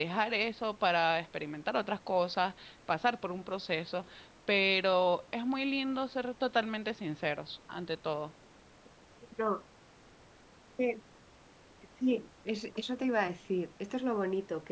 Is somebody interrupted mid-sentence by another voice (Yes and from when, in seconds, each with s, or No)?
No